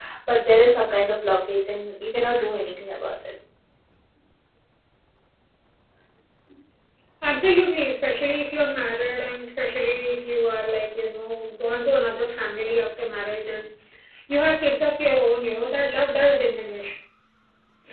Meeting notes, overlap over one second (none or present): none